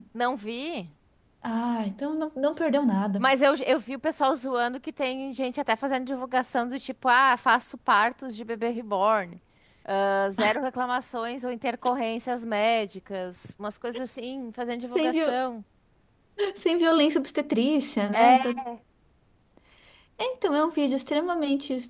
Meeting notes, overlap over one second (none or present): none